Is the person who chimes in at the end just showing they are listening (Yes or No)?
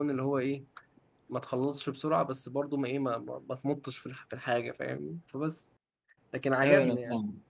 No